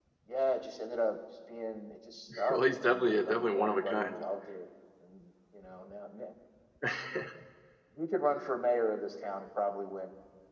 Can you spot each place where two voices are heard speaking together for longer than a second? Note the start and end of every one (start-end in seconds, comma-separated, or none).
2.5-4.2